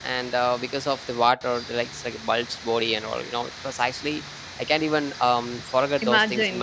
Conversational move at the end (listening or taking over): listening